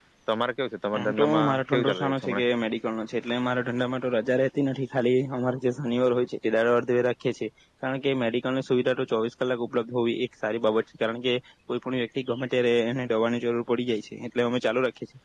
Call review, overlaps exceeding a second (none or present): present